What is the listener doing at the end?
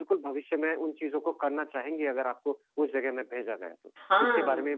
taking over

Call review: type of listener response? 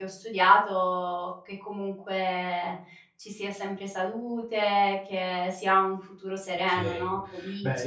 taking over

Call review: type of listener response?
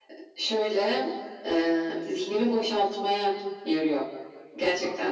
taking over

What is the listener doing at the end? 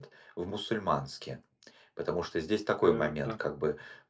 listening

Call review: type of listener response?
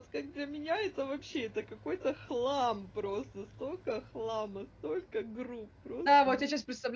taking over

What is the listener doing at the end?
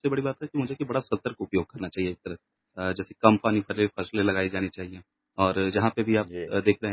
listening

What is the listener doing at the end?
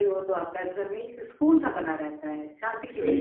taking over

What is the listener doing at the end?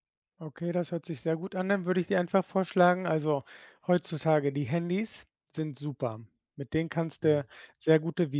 listening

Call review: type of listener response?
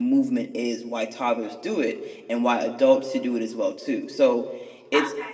taking over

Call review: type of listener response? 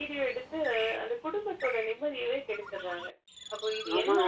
taking over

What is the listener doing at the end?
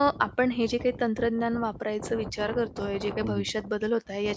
listening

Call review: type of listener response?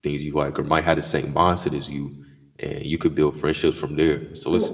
listening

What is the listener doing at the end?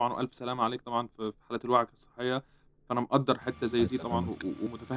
listening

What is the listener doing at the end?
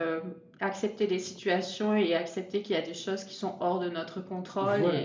taking over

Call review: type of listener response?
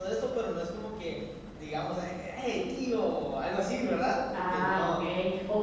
taking over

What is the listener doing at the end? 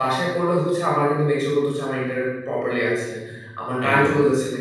listening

